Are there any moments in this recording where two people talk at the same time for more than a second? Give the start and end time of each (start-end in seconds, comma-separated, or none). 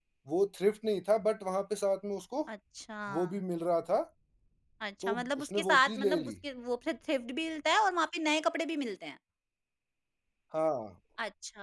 5.0-6.3